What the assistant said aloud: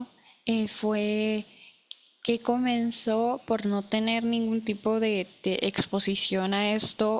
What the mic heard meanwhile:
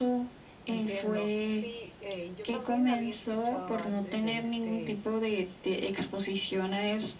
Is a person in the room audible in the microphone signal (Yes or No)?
Yes